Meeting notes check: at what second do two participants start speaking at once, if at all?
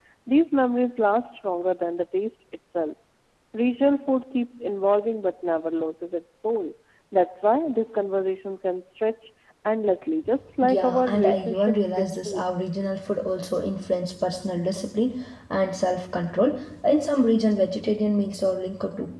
10.6 s

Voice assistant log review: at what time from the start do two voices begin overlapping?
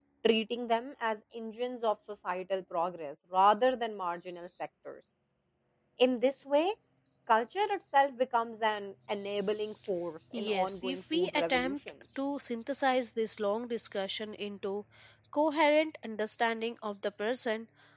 10.3 s

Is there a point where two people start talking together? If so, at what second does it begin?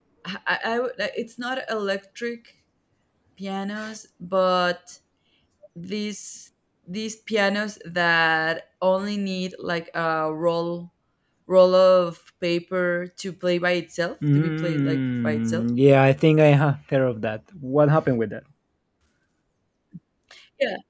14.3 s

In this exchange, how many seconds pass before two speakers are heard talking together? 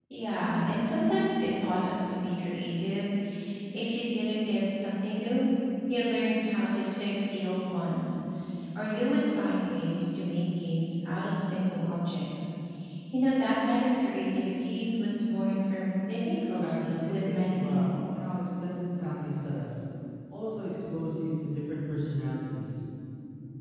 16.6 s

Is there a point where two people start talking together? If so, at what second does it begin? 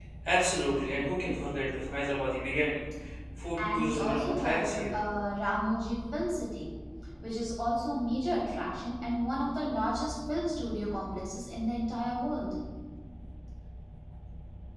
3.6 s

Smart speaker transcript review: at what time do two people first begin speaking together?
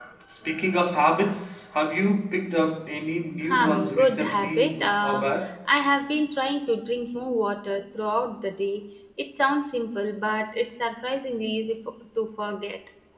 3.5 s

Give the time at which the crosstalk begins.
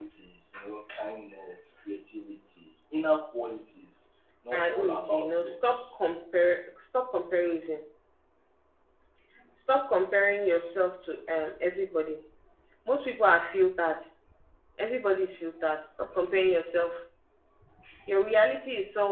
4.5 s

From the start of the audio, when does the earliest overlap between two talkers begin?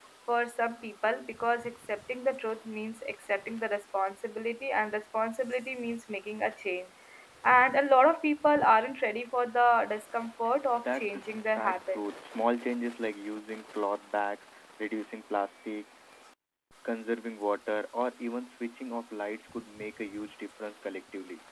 10.7 s

